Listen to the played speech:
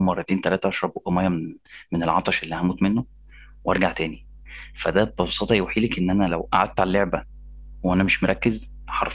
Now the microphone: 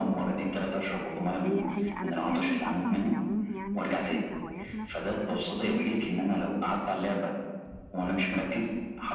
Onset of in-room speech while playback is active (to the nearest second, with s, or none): 1 s